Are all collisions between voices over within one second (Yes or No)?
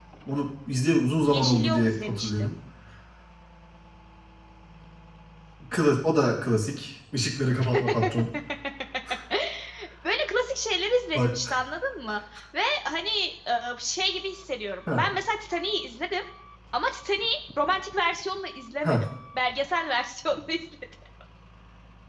No